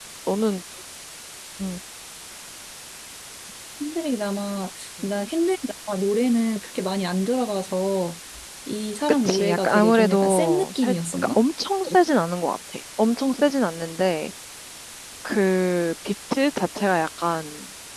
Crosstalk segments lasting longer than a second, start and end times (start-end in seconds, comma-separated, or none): 9.2-11.4